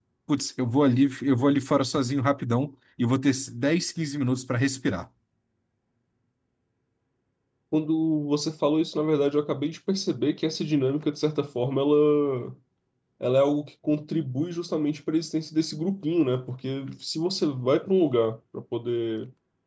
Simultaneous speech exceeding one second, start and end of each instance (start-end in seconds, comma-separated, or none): none